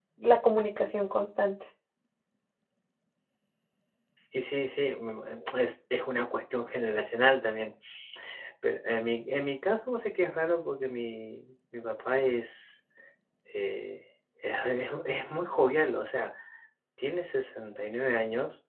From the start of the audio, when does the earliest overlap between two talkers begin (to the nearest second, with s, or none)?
none